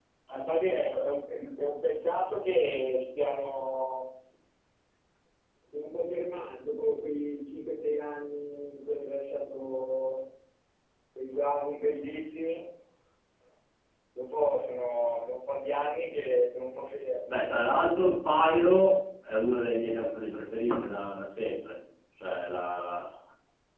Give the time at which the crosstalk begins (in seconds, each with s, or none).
none